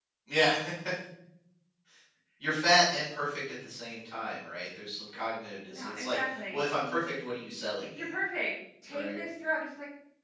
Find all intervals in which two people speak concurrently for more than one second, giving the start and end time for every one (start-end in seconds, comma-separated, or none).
5.8-7.1